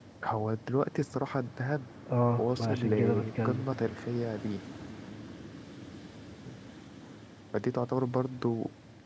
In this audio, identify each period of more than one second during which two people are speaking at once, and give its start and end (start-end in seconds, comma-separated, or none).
2.4-3.6